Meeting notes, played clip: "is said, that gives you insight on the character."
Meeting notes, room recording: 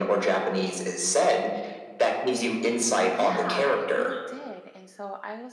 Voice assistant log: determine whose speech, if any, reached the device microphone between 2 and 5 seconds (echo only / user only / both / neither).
both